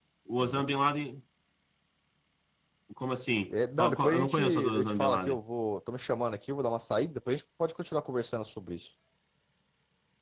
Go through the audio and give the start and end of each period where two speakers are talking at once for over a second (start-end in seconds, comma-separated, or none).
3.8-5.4